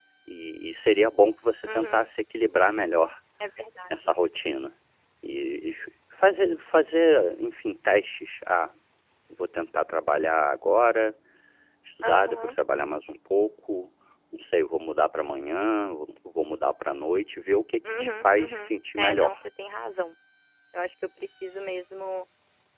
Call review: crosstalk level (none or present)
present